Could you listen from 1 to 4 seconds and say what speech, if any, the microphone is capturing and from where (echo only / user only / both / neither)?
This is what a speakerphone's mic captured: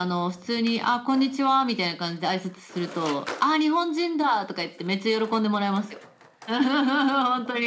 echo only